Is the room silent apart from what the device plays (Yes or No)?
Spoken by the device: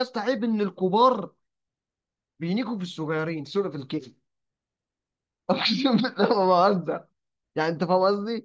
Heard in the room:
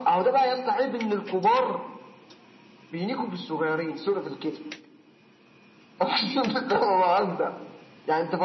Yes